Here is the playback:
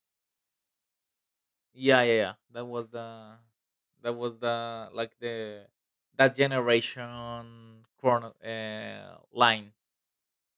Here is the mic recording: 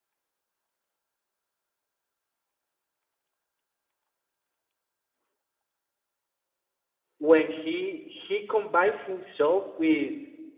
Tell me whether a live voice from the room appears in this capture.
Yes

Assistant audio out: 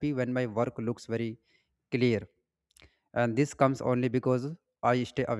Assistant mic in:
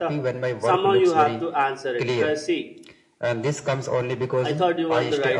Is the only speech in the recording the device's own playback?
No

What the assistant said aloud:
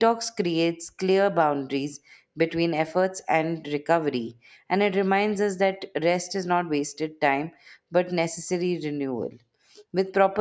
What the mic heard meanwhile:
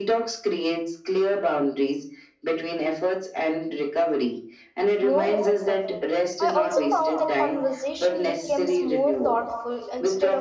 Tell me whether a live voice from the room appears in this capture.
Yes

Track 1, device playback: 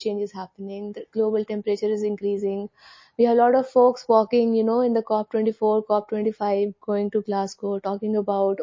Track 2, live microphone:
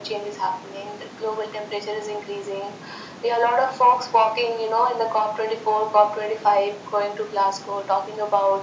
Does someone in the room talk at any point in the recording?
No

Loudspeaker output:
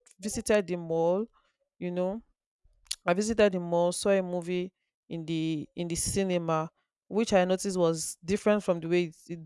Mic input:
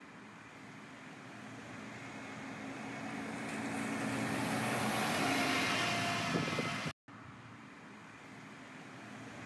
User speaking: No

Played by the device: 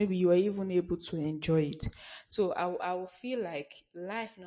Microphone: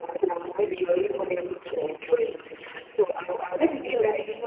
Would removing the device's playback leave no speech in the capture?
No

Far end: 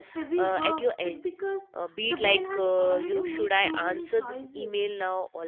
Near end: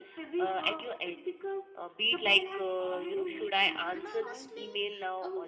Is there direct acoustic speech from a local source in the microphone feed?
Yes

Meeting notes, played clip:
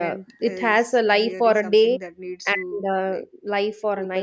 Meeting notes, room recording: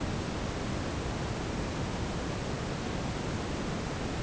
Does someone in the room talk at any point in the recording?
No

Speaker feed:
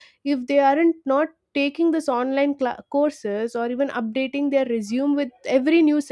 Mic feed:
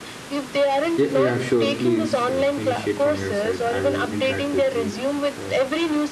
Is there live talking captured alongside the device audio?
Yes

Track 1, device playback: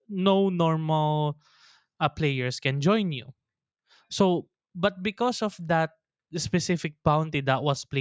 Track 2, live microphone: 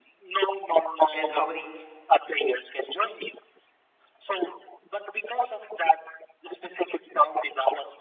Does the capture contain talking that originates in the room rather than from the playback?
Yes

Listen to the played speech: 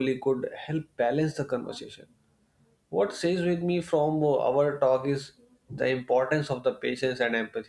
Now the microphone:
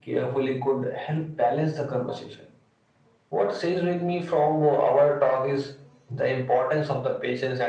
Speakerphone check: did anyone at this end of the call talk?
No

